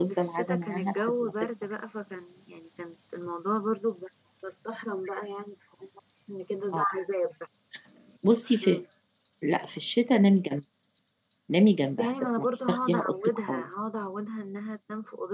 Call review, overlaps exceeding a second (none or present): present